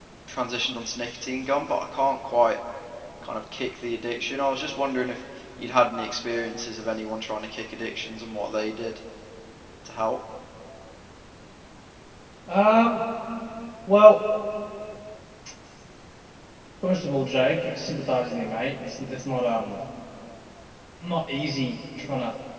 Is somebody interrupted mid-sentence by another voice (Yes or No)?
No